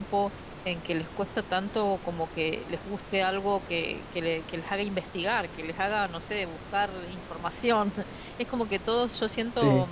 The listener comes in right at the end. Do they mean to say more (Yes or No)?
No